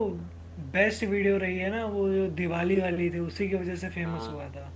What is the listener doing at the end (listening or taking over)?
taking over